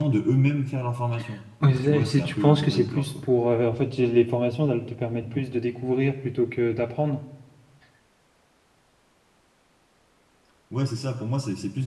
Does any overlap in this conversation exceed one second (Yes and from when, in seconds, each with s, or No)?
Yes, from 1.6 s